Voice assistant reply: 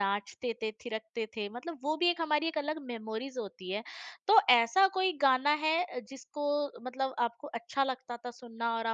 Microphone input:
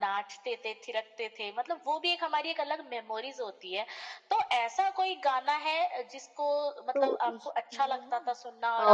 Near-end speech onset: 6.9 s

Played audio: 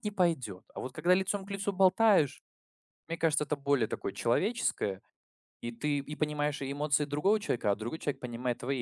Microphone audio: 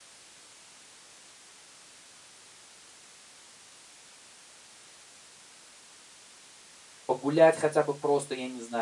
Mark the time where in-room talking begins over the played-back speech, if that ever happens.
7.0 s

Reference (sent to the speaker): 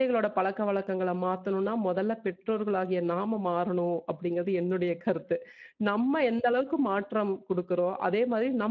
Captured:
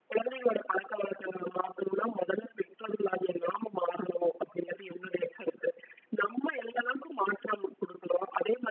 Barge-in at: none

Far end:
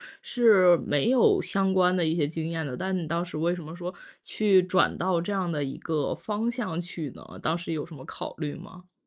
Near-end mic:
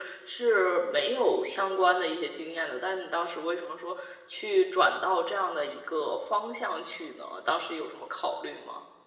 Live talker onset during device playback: none

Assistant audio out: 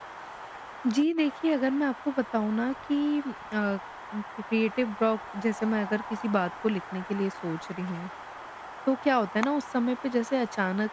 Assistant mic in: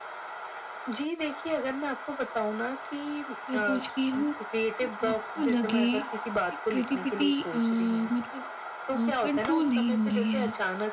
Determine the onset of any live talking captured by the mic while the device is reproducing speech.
3.5 s

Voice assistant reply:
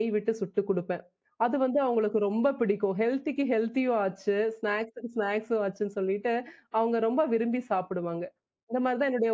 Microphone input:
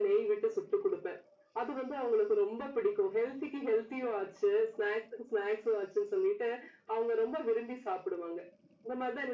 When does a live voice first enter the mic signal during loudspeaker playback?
none

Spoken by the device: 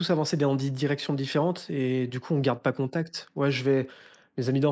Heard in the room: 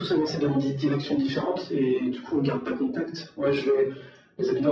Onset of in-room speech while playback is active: none

